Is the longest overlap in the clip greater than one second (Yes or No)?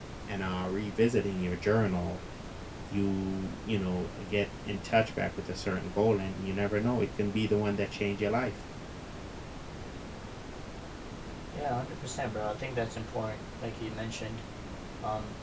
No